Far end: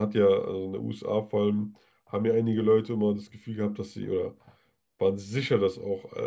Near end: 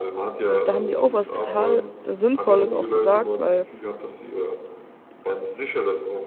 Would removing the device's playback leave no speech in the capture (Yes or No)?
No